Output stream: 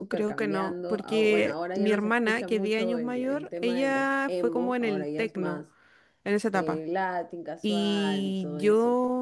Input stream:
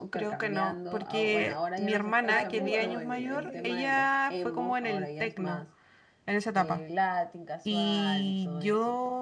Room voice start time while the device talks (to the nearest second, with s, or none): 2 s